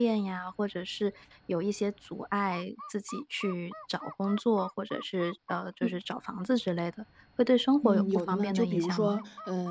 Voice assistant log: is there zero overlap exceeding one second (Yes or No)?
No